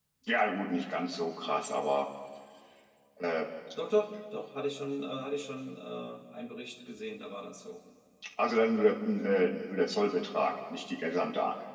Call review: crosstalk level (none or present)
none